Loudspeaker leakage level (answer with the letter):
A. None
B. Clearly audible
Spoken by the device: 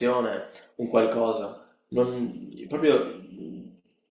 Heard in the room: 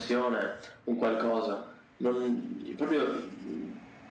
B